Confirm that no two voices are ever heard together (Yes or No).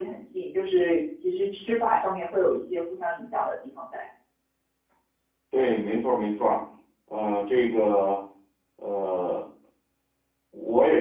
Yes